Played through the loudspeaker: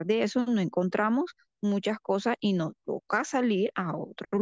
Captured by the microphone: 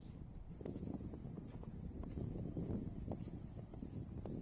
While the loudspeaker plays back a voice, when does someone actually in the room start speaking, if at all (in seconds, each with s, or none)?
none